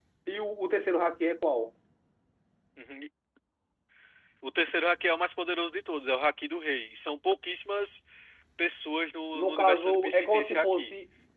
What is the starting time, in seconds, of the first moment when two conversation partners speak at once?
9.3 s

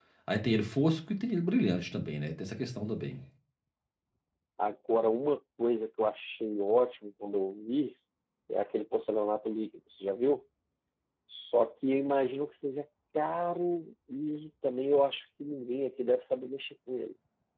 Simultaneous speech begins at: none

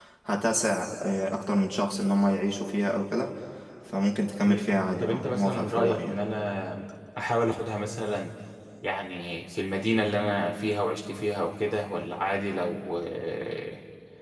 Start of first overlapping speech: 4.4 s

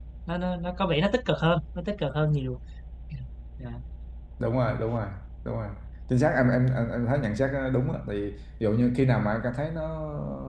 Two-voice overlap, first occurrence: none

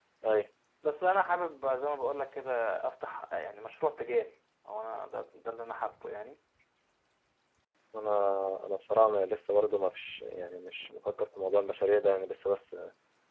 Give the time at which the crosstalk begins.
none

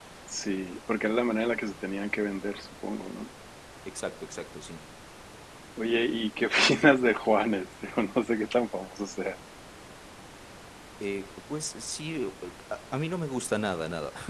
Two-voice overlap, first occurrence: none

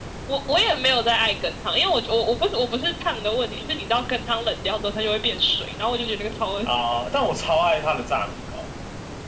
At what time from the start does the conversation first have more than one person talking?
none

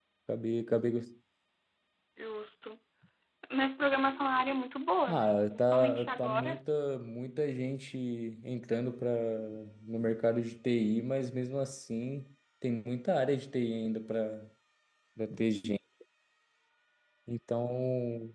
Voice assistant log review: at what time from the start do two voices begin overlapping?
5.1 s

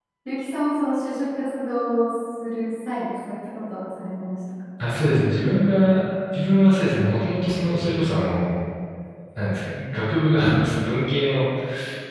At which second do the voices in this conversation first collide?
none

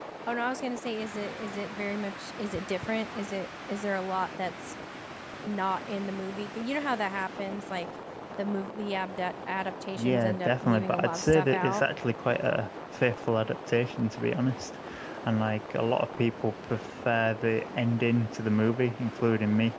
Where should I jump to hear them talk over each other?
10.0 s

